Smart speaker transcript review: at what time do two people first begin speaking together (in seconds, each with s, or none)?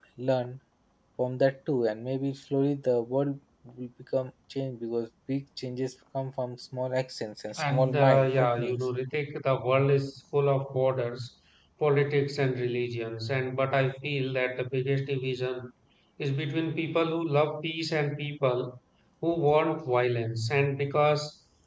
7.6 s